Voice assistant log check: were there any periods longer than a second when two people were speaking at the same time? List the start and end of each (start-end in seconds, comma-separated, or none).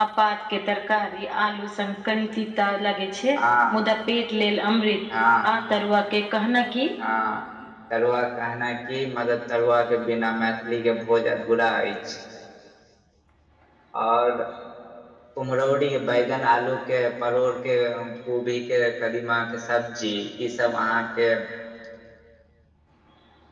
none